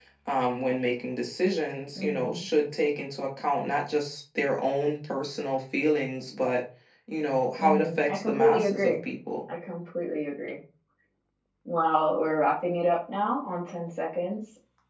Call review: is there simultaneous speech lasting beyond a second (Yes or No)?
Yes